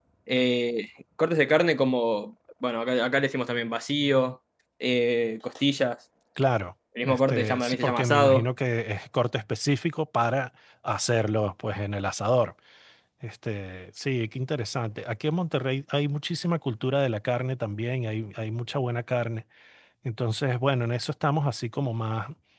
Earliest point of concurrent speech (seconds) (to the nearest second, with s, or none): 7 s